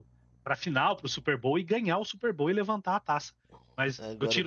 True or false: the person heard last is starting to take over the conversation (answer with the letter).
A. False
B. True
A